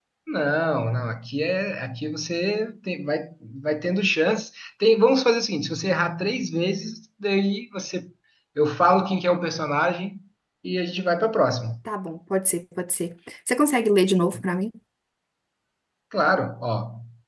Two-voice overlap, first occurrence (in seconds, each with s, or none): none